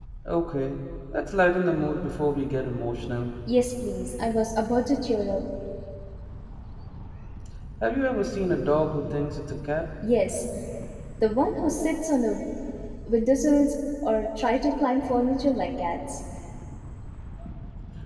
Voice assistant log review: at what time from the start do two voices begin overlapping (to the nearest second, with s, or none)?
none